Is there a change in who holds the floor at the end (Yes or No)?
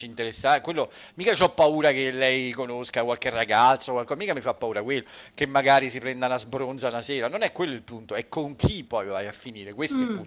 Yes